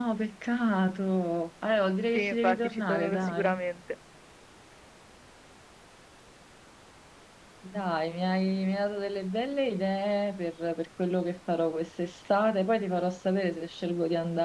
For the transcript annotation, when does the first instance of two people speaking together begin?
2.1 s

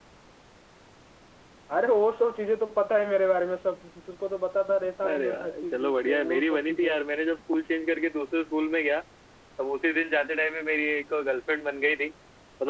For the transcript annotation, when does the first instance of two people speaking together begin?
5.0 s

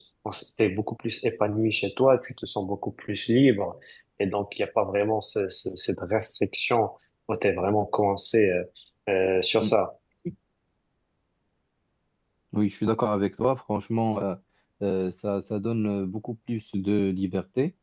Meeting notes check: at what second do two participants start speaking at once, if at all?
none

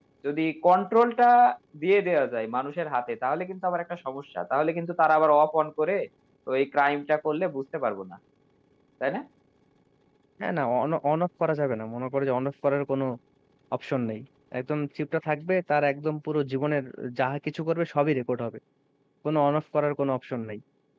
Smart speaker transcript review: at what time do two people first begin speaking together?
none

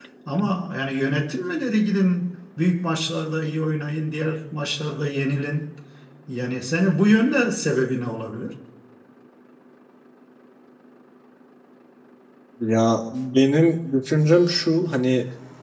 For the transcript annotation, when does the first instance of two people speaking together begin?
none

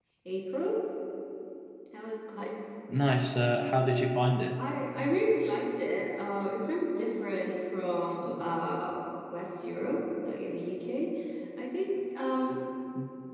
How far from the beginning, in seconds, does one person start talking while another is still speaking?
none

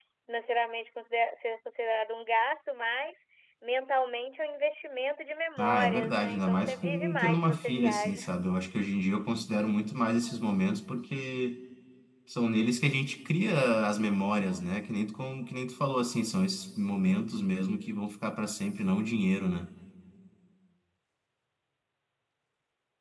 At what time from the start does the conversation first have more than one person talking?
5.6 s

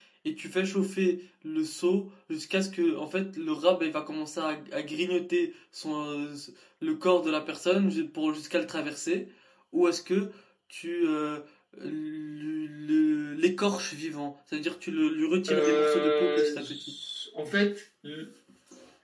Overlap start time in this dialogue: 15.5 s

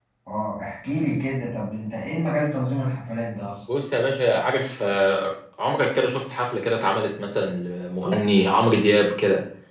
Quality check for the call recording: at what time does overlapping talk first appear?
none

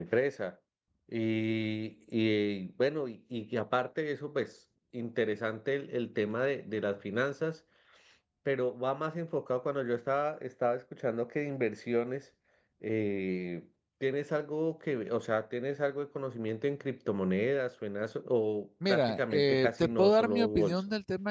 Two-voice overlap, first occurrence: 18.8 s

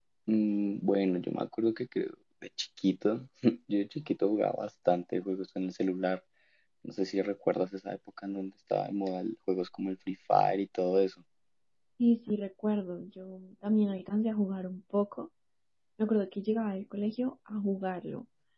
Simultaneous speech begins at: none

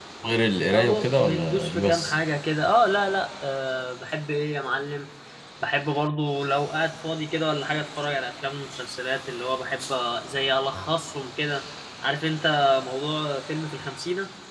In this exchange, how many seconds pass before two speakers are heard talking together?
0.7 s

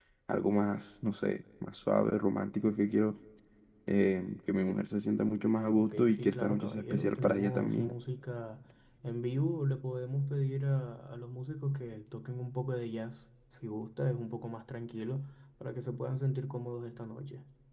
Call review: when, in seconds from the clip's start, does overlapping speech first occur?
5.7 s

